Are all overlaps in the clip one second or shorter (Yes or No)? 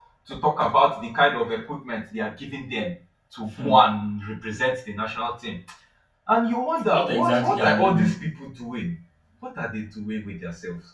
No